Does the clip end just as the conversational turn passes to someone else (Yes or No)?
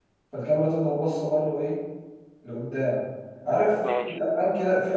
No